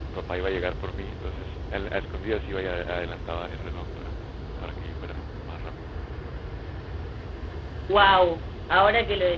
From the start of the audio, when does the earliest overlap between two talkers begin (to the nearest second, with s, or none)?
none